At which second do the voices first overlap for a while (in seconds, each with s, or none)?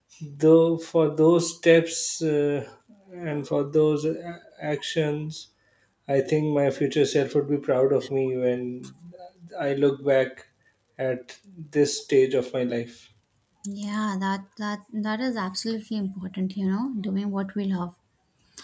none